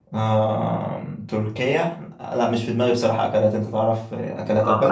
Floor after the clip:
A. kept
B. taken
B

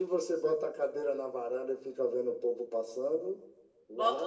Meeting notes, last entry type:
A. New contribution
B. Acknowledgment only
A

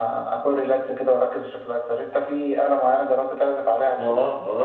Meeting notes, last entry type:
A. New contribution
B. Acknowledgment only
A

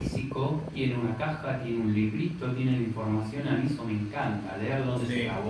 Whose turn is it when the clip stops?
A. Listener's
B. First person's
B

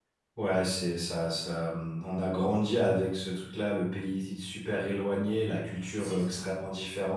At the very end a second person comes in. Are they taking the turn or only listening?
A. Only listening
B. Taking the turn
A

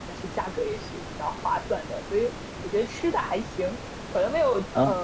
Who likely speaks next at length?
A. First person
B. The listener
A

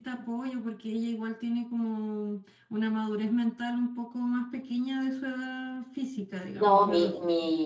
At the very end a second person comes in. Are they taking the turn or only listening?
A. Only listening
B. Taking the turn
B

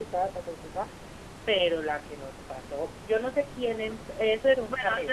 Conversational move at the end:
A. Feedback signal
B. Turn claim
B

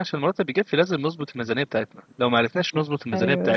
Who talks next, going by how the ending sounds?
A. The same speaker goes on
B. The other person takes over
A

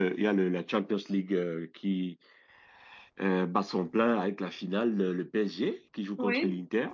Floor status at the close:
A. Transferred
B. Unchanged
B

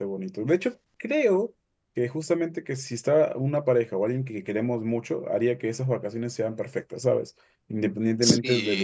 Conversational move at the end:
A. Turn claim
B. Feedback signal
B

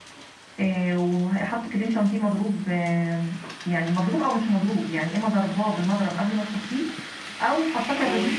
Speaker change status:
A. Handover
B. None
B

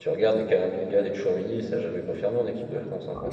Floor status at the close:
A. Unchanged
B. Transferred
B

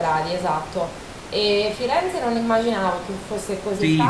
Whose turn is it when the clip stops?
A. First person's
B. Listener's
B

